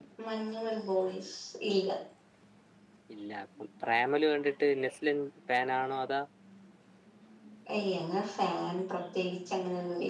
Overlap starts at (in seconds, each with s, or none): none